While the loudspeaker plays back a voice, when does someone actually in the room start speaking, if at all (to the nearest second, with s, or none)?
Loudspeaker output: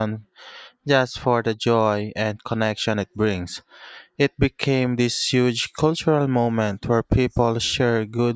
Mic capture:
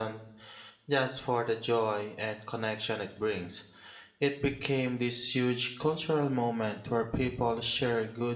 none